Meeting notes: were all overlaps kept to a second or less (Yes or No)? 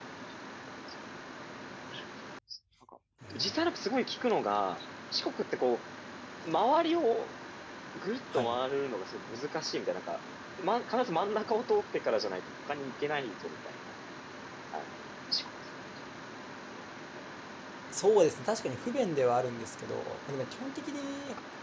Yes